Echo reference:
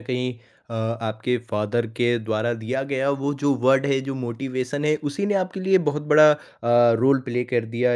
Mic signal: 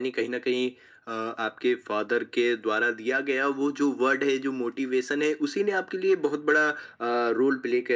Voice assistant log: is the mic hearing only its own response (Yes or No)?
Yes